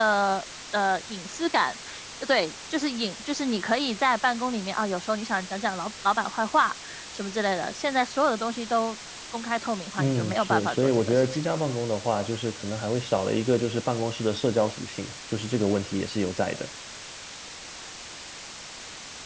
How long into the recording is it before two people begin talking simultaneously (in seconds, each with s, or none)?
10.0 s